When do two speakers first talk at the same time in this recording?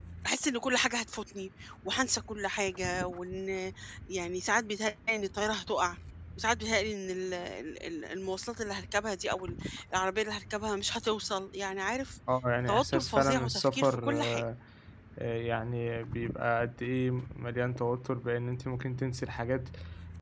12.7 s

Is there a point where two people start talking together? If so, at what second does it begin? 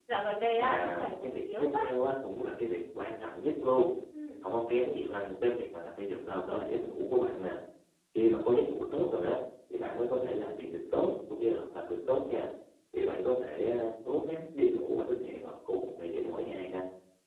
0.6 s

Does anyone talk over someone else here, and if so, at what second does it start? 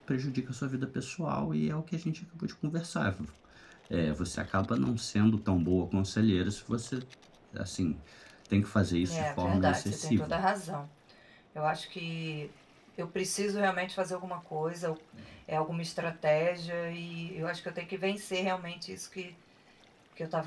9.1 s

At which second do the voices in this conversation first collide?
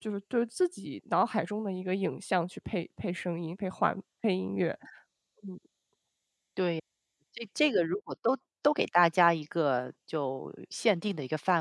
none

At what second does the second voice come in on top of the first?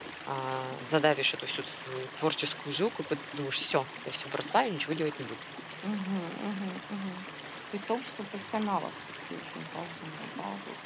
none

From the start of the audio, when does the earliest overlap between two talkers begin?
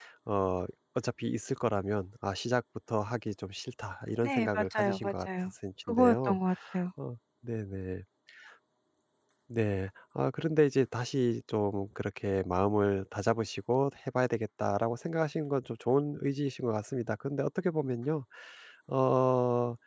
4.2 s

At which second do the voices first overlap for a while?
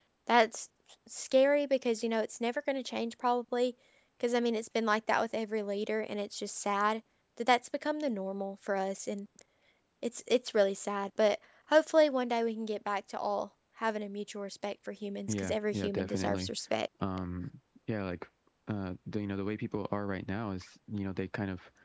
15.3 s

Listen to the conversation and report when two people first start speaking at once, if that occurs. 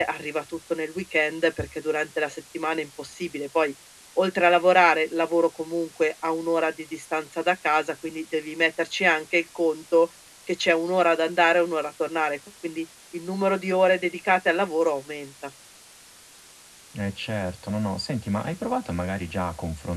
none

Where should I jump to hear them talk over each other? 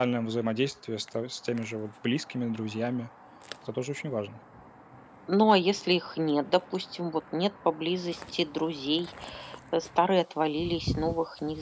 none

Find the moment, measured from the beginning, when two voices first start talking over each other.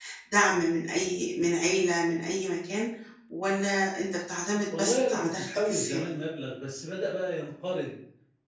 4.7 s

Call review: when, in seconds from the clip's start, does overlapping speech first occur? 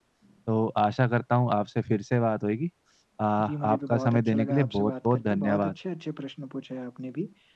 3.5 s

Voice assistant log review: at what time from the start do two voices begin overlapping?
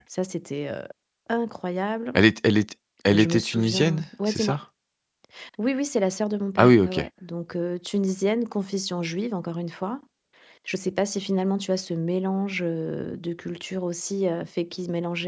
3.1 s

